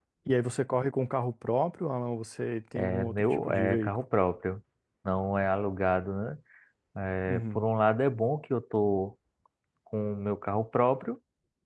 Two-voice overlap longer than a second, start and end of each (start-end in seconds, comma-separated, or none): 2.8-4.0